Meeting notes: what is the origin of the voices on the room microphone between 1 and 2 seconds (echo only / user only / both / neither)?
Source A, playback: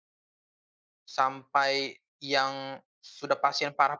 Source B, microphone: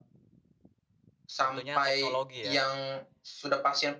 both